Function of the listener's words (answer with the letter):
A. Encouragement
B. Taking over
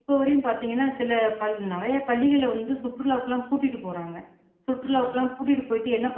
A